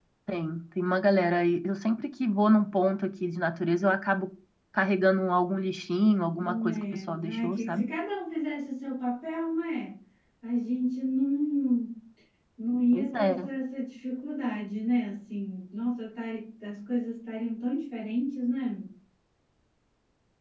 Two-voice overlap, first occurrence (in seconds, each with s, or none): 6.4 s